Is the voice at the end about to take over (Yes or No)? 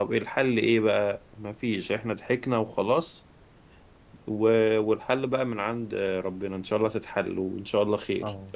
Yes